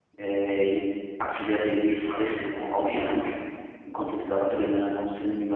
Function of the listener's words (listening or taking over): listening